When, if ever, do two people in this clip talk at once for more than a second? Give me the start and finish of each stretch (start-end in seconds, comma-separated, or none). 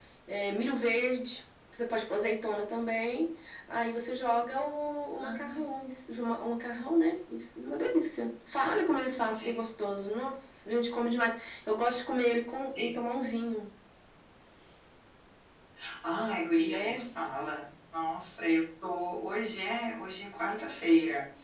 none